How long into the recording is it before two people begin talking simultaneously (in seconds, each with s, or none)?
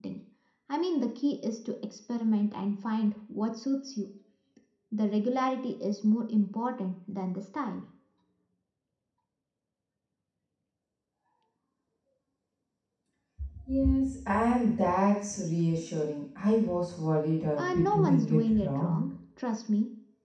17.6 s